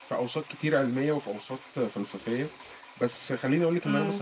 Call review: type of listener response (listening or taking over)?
listening